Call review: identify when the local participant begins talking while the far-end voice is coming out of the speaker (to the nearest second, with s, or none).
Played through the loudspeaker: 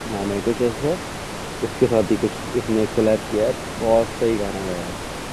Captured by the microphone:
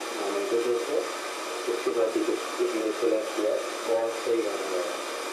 none